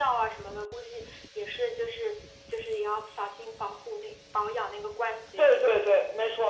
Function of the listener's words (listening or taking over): taking over